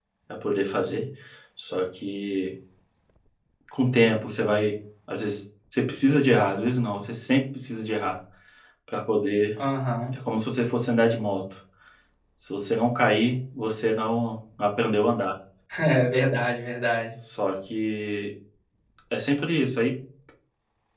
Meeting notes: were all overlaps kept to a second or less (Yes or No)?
Yes